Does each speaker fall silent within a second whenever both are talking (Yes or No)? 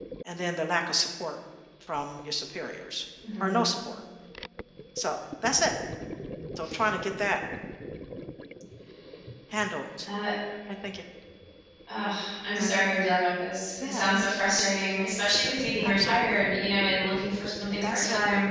Yes